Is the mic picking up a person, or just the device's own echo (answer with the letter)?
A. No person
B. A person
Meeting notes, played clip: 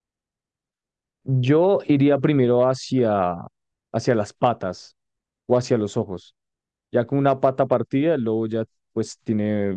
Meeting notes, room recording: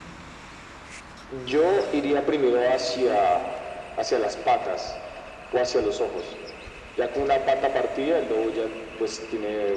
A